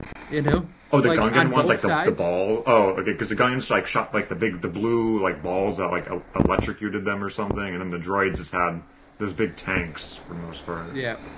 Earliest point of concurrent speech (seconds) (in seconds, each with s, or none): 1.0 s